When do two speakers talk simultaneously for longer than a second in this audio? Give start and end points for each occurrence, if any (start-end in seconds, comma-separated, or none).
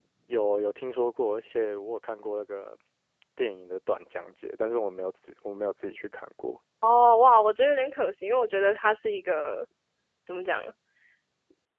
none